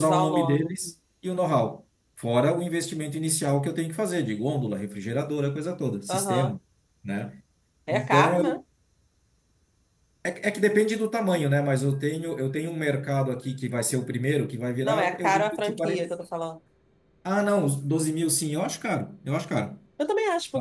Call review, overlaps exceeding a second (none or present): present